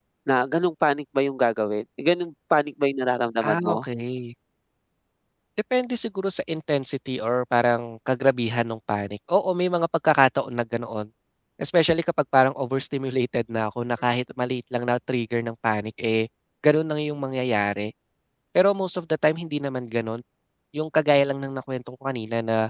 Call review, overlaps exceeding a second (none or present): none